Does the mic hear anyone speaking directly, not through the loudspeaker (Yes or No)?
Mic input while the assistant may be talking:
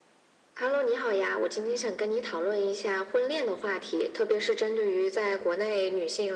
No